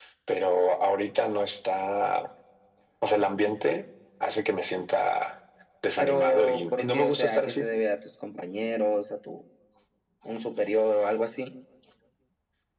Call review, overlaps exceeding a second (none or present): present